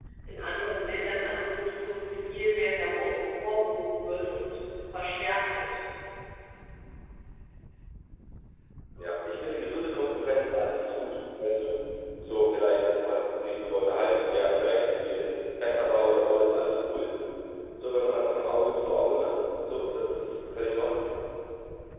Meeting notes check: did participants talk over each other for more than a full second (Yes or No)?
No